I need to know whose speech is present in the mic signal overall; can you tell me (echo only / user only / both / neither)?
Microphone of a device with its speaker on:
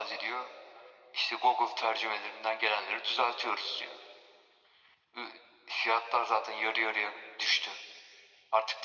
echo only